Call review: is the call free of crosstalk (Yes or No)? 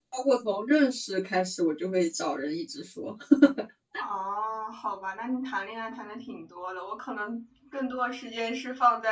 Yes